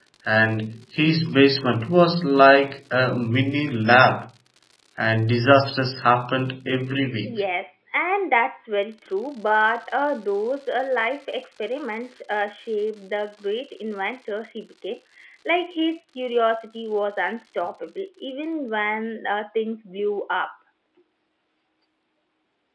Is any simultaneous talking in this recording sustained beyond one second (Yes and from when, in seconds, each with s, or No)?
No